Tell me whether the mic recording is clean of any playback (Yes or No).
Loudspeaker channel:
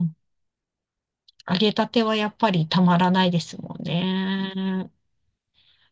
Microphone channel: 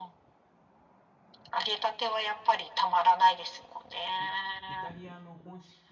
No